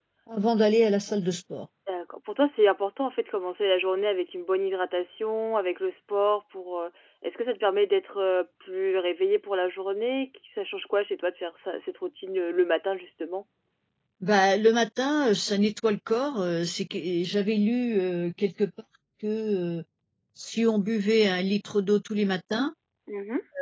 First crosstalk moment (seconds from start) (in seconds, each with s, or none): none